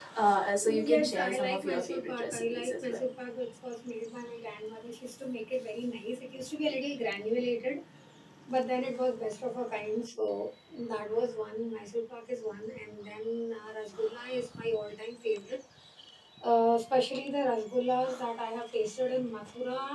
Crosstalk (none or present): present